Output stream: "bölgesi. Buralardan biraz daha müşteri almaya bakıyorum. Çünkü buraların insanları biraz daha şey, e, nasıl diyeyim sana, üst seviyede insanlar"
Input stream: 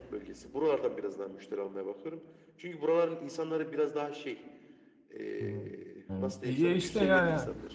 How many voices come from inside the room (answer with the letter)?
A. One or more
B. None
A